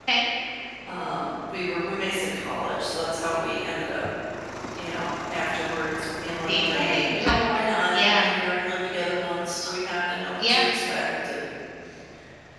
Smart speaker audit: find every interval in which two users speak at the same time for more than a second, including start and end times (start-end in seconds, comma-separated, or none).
6.5-8.3